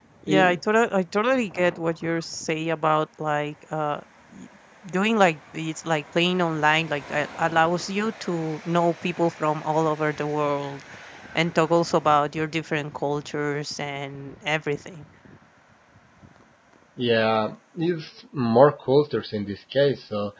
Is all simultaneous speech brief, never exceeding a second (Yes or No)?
Yes